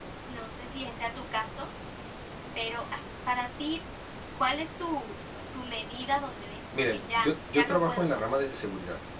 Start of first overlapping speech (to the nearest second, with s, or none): 7 s